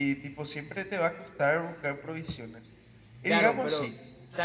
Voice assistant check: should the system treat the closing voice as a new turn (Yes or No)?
Yes